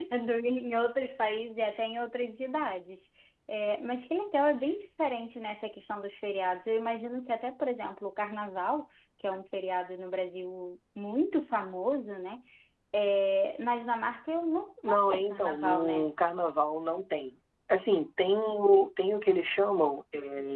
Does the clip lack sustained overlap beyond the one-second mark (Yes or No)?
No